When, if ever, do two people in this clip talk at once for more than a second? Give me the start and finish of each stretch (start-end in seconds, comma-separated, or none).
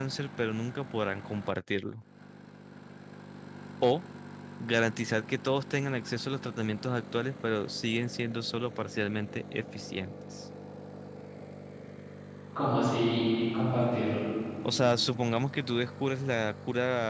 none